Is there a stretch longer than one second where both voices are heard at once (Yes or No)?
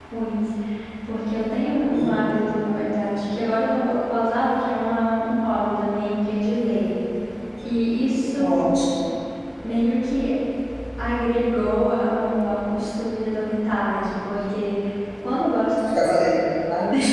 No